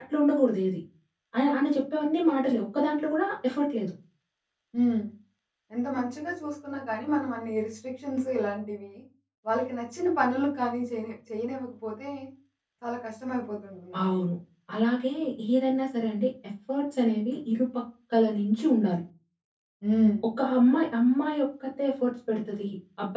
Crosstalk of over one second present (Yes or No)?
No